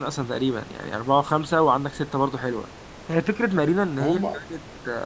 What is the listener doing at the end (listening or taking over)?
listening